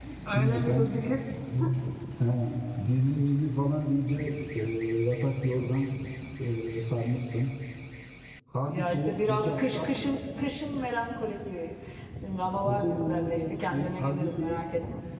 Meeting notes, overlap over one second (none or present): present